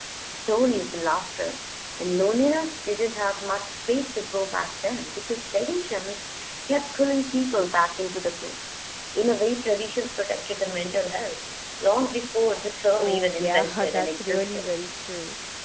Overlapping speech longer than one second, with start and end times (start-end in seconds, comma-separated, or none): 13.0-14.7